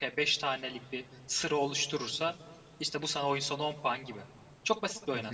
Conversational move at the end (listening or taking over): taking over